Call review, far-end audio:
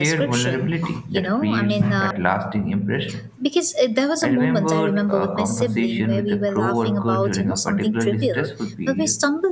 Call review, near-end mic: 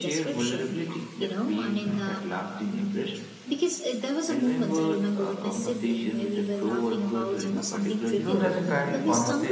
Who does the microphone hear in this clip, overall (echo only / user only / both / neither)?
both